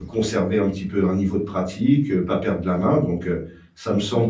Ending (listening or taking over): listening